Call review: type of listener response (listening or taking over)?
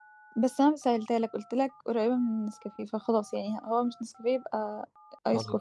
taking over